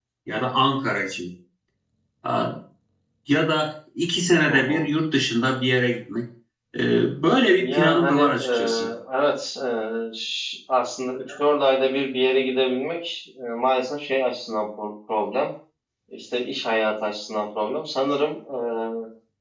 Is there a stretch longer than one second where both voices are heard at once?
Yes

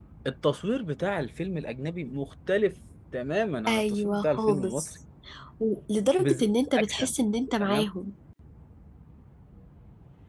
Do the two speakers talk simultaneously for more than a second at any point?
Yes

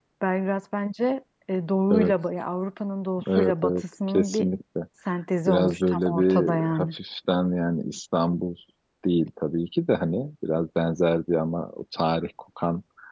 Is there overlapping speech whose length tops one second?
Yes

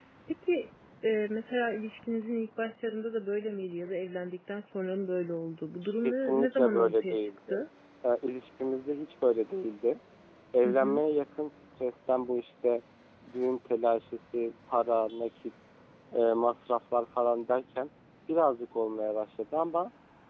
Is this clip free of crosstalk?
No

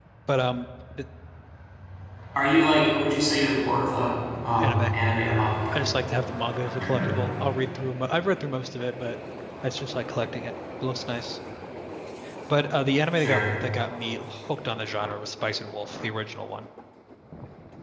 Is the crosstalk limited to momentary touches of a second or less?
Yes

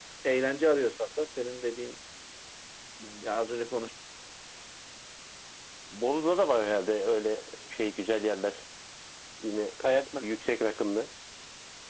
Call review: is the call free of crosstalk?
Yes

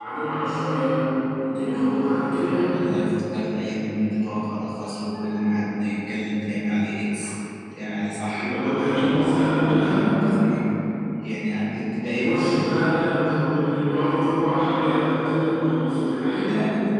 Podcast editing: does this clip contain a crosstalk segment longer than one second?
No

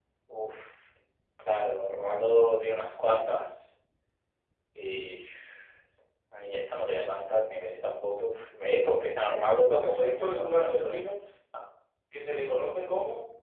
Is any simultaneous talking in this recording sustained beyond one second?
Yes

